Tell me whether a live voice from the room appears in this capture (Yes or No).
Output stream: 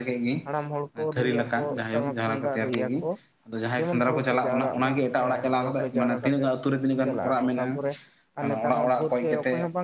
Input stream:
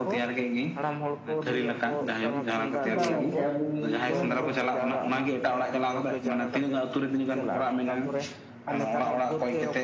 Yes